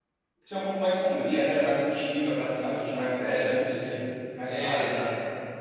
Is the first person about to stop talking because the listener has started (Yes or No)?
Yes